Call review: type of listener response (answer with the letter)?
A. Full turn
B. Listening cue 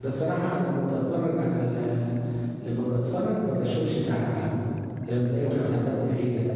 B